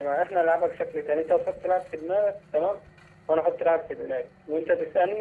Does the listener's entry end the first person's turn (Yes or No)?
No